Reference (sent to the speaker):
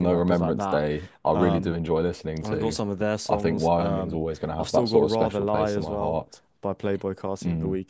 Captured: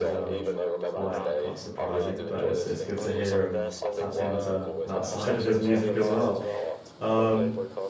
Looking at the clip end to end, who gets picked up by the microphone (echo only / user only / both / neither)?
both